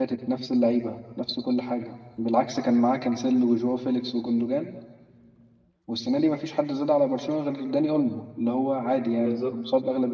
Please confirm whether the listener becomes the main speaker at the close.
No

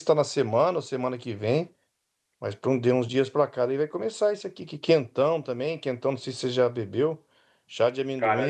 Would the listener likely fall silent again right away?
Yes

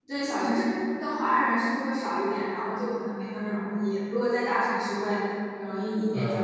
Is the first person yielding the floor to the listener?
Yes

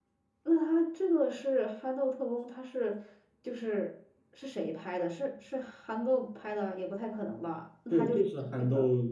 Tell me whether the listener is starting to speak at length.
Yes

